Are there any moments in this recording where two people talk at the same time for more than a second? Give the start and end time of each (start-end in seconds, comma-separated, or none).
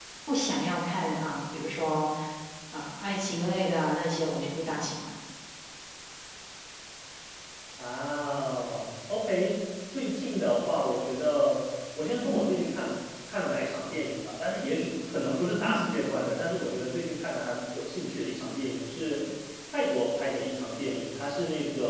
none